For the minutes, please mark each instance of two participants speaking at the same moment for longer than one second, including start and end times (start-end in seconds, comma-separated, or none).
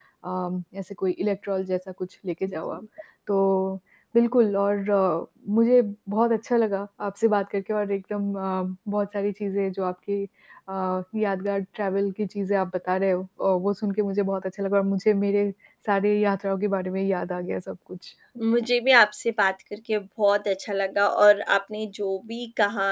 none